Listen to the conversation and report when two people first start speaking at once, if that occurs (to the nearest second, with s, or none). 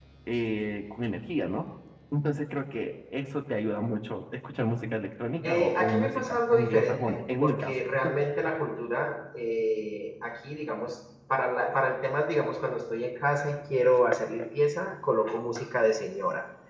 5 s